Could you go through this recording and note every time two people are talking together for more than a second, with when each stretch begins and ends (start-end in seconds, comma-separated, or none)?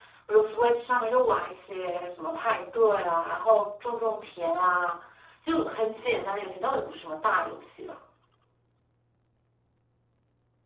none